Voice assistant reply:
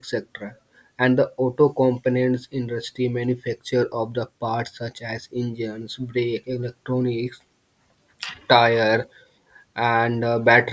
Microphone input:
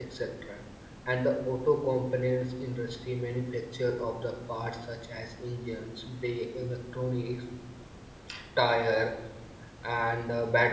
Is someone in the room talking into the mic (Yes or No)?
No